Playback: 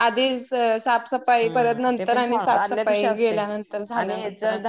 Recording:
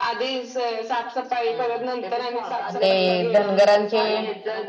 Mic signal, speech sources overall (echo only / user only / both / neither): both